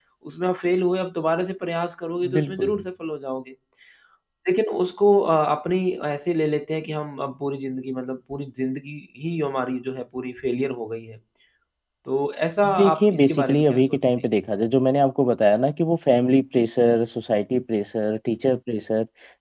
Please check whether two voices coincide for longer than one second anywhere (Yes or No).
Yes